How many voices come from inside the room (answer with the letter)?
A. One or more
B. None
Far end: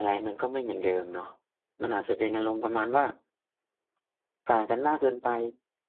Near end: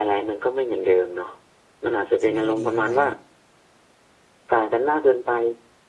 A